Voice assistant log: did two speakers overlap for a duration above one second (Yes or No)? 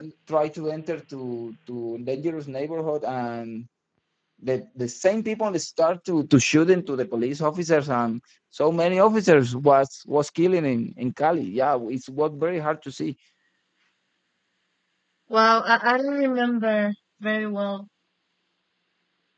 No